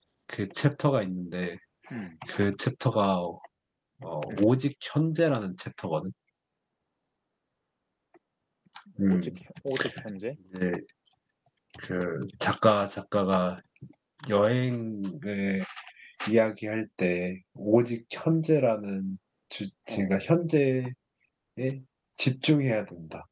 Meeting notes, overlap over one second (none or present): none